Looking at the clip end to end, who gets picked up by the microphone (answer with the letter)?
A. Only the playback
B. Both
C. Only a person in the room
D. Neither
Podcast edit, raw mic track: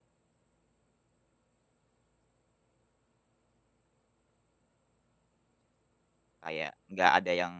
C